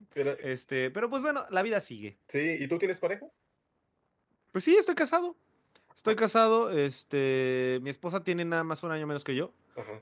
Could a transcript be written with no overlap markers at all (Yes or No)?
Yes